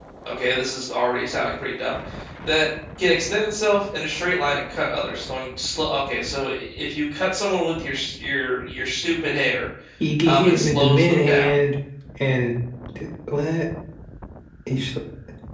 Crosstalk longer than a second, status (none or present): present